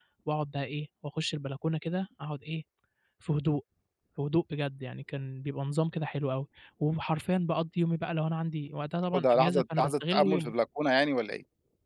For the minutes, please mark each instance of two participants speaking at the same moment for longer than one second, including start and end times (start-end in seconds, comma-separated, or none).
9.1-10.5